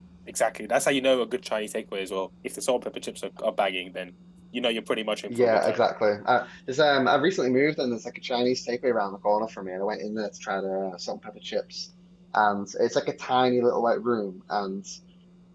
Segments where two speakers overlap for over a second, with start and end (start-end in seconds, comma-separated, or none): none